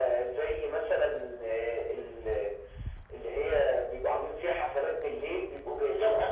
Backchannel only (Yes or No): Yes